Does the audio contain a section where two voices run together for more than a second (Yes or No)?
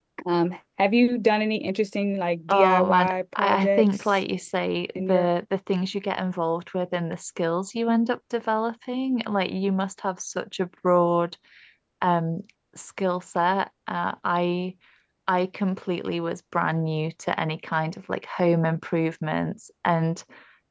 Yes